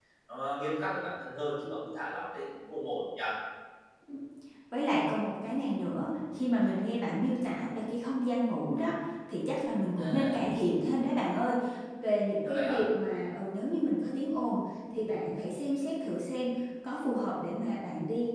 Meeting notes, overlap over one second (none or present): none